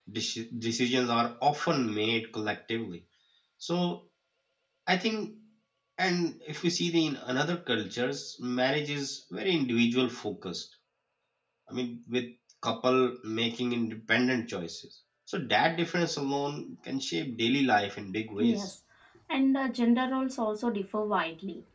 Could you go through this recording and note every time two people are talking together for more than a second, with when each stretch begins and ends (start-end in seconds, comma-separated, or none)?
none